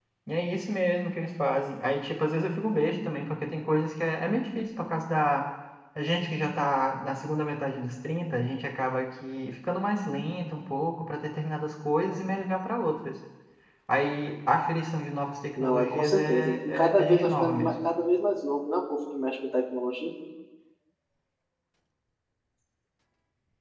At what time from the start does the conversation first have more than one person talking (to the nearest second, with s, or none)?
16 s